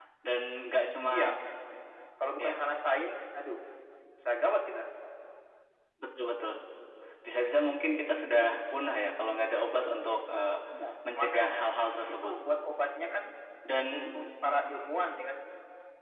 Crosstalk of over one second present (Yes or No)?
No